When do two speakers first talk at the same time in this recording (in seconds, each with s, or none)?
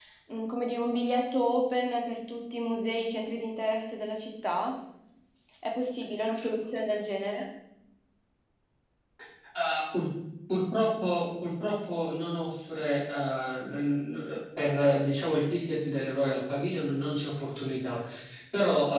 none